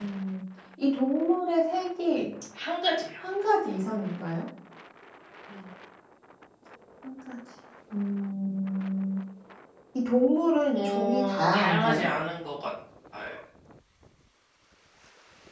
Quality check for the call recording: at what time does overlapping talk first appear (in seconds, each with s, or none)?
10.7 s